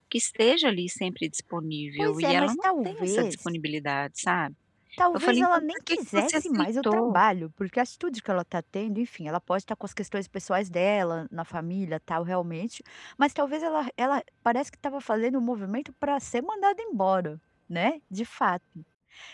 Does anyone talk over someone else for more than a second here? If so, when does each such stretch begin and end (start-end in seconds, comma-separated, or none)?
2.0-3.4, 5.1-7.2